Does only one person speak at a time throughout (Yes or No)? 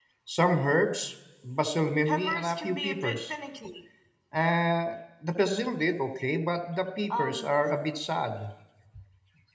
No